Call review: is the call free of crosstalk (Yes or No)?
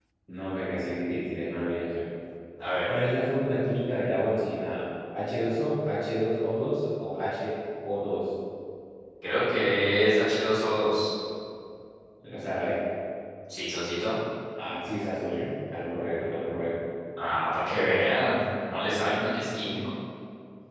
Yes